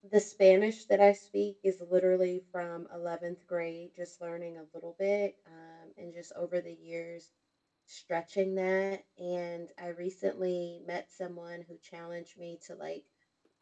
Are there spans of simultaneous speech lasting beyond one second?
No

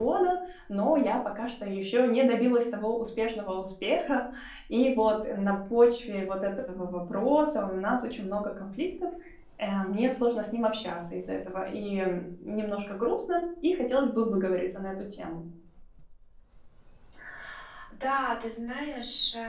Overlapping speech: No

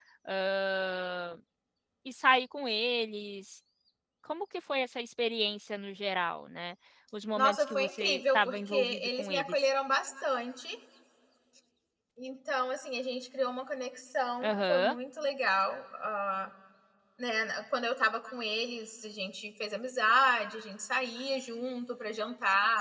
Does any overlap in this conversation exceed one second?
Yes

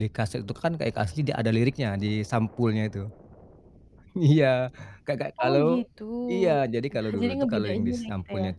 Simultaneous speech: Yes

